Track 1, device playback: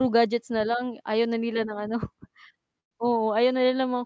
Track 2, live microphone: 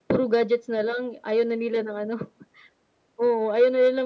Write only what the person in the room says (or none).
none